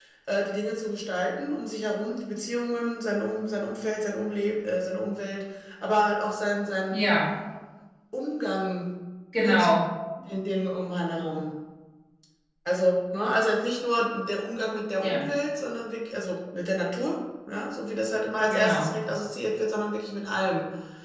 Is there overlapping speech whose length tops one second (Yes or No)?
No